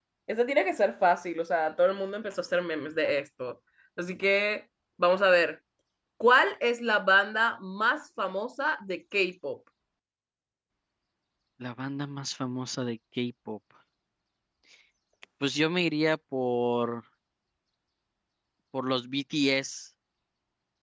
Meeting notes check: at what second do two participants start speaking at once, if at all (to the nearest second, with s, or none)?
none